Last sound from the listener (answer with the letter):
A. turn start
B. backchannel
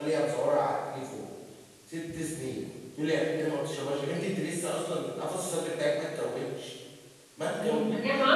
A